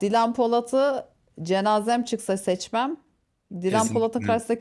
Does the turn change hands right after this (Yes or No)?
No